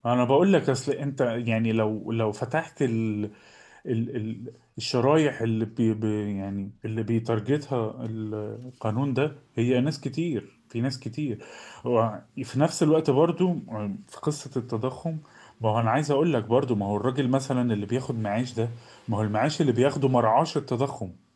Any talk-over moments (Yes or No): No